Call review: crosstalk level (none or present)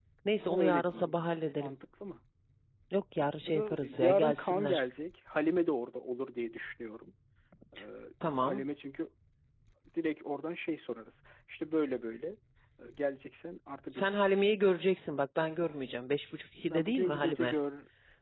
present